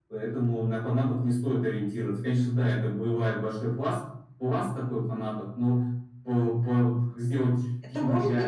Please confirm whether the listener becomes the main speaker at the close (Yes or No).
Yes